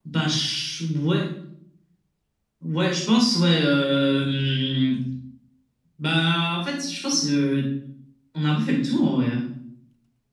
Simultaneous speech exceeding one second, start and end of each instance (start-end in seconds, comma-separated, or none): none